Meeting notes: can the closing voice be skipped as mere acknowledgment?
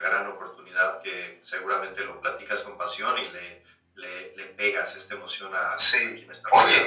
No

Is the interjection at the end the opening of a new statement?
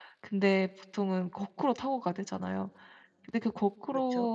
No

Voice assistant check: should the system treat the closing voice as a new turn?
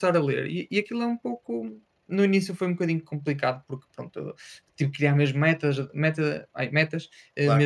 No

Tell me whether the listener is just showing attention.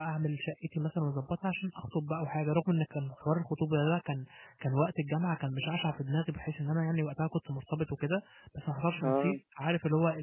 Yes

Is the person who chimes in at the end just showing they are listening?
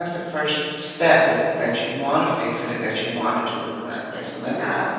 No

